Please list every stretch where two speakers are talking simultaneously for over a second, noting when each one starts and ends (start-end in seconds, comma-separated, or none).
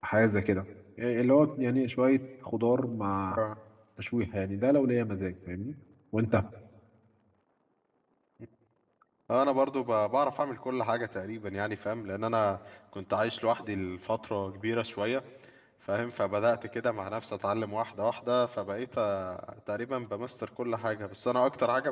none